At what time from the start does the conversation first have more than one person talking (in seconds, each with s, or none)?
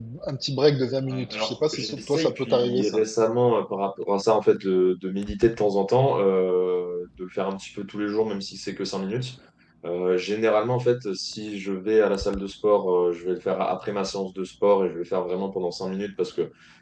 1.1 s